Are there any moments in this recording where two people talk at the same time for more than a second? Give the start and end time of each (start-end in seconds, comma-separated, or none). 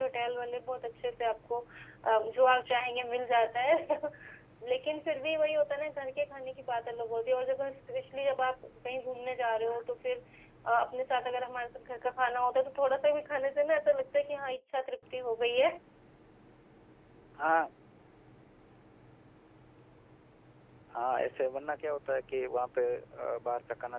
none